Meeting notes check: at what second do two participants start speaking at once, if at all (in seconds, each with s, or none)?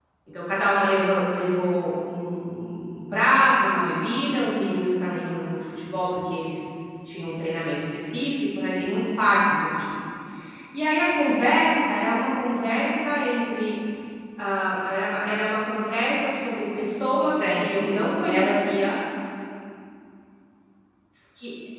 17.2 s